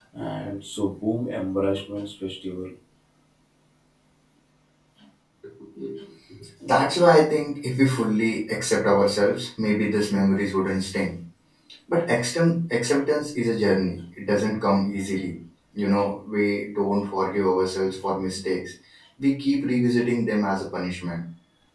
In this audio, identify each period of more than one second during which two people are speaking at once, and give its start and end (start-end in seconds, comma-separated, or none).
none